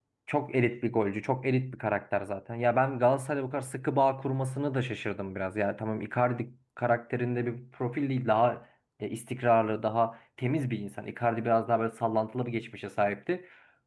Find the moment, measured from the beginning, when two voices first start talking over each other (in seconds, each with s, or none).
none